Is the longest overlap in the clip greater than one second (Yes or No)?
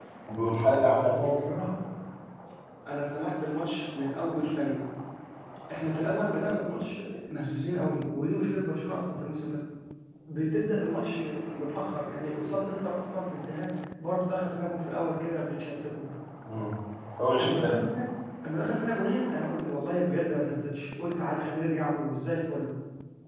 No